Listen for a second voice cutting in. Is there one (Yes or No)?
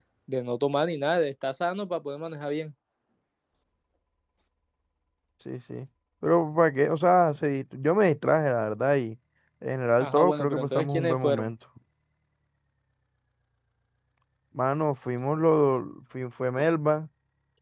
Yes